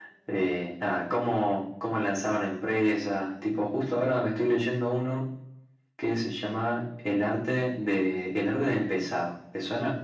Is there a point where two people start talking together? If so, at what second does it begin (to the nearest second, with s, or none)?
none